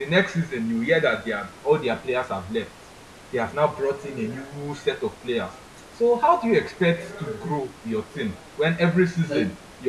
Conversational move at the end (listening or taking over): listening